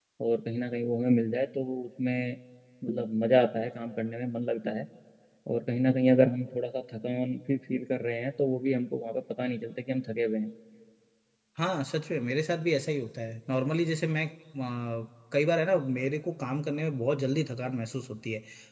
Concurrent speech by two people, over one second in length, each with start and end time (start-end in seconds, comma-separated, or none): none